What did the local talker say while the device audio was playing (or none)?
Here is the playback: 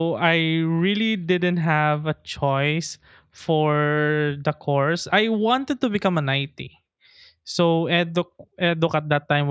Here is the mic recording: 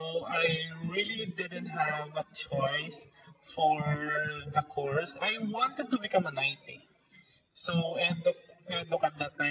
none